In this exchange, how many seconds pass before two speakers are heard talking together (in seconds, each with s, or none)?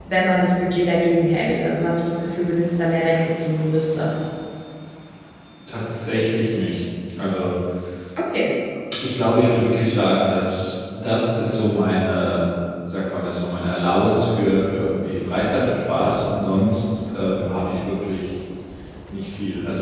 none